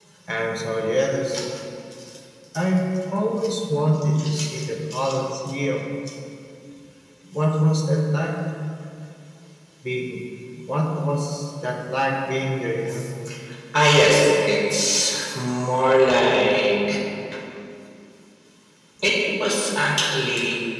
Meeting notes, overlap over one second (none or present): none